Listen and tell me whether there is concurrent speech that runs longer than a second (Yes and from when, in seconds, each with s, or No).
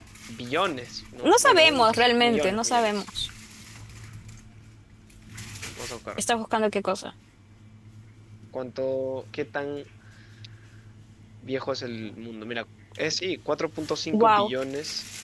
Yes, from 1.3 s